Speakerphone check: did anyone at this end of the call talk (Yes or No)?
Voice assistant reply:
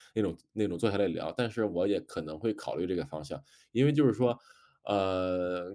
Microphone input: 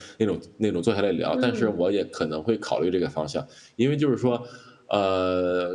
Yes